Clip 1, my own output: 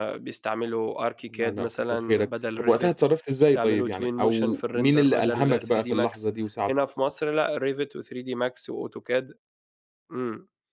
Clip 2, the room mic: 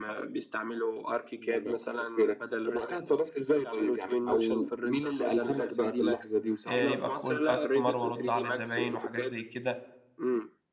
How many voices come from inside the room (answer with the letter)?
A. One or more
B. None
A